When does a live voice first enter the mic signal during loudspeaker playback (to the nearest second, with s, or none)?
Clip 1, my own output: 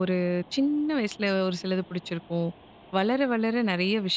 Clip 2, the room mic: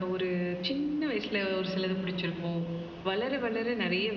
none